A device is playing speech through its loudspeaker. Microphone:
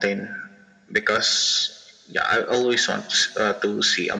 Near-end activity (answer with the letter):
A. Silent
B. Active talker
A